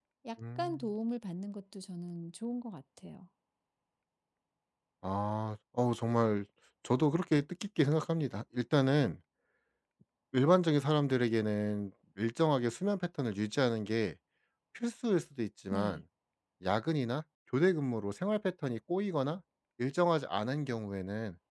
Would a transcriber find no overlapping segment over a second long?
Yes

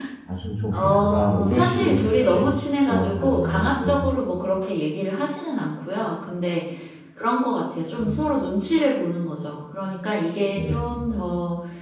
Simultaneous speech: Yes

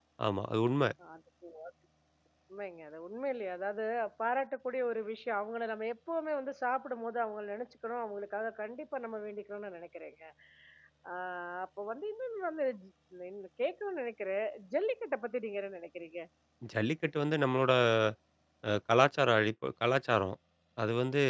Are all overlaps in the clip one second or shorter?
Yes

